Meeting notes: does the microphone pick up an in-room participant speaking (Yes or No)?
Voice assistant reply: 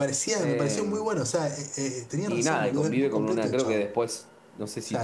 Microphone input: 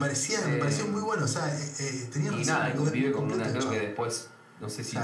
No